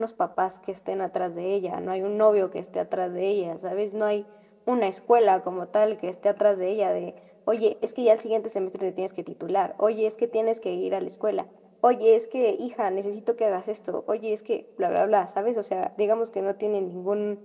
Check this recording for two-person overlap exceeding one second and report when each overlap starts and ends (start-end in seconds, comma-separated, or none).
none